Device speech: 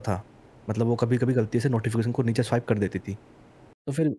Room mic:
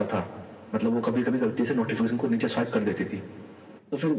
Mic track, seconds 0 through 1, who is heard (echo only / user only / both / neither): echo only